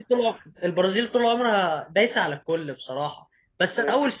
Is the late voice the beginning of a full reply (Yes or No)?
No